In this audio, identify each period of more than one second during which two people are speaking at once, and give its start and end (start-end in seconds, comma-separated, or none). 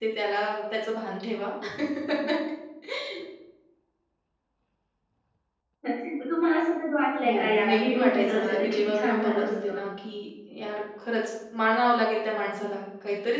7.2-9.8